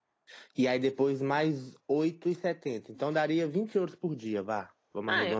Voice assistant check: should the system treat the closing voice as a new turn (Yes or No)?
Yes